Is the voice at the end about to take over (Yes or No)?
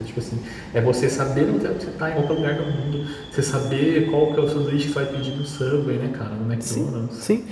Yes